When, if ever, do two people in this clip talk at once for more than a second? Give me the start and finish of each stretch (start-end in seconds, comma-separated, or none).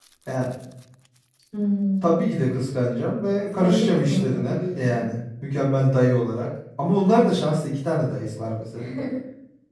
3.5-5.0